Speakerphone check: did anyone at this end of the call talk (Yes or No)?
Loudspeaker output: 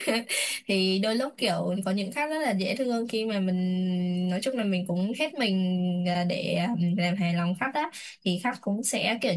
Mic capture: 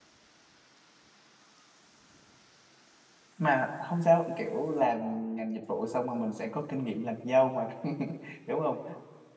Yes